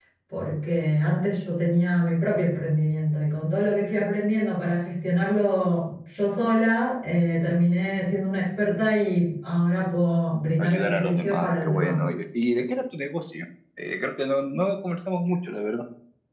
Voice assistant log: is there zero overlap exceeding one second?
No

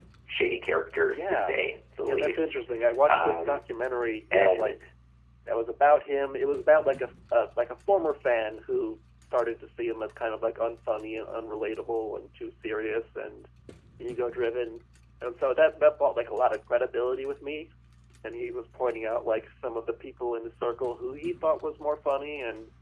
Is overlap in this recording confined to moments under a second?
Yes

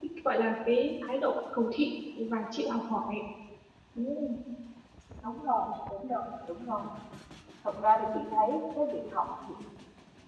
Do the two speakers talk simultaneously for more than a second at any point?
No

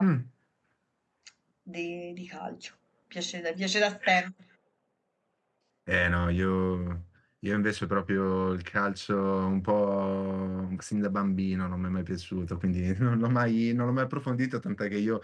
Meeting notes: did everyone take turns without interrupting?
Yes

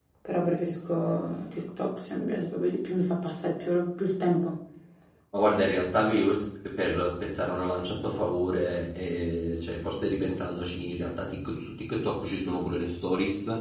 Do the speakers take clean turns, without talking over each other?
Yes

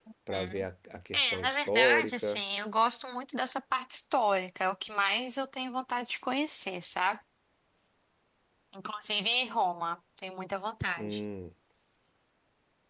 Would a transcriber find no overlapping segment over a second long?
No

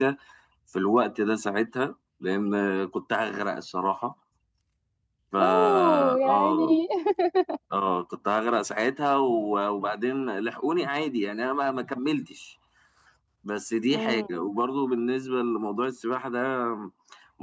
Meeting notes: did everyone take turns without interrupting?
No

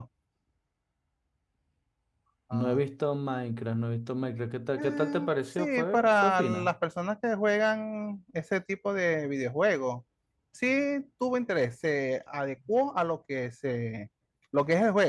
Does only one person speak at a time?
No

